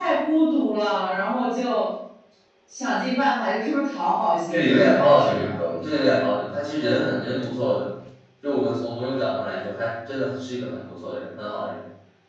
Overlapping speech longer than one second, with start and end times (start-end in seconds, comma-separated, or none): 4.5-5.9